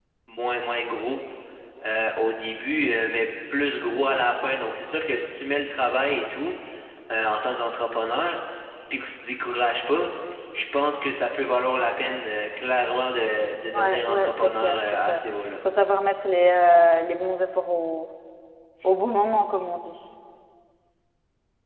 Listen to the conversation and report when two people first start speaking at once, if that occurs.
13.7 s

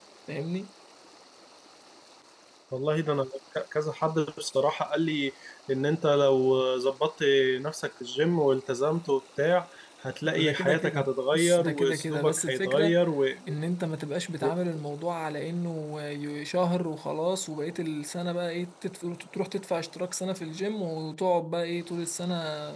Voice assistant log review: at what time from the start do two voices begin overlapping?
10.2 s

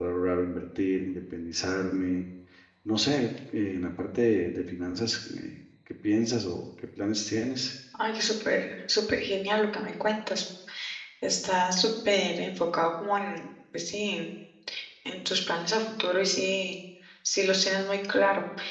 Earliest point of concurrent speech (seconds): none

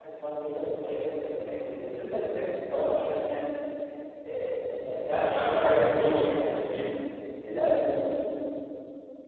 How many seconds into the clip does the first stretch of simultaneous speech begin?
5.1 s

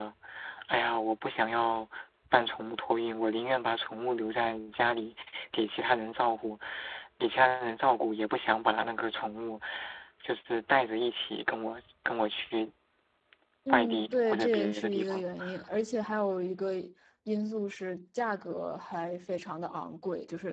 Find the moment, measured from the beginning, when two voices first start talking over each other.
13.7 s

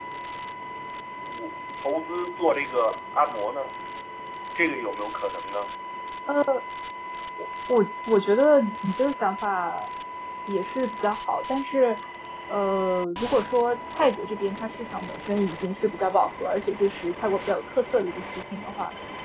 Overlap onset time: none

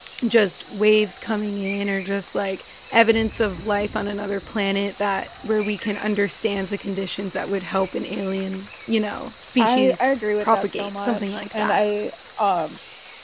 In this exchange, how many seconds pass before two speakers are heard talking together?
9.6 s

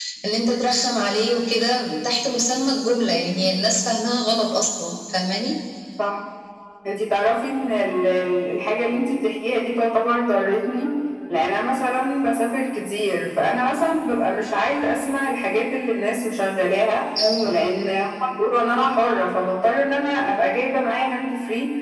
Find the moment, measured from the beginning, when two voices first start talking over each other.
none

